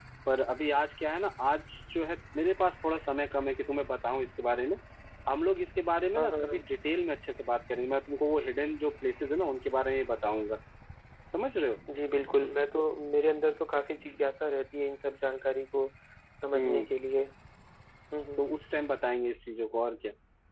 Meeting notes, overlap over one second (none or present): none